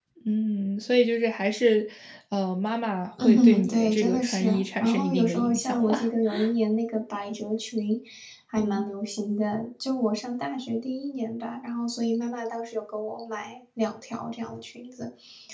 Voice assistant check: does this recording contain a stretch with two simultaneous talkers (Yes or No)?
Yes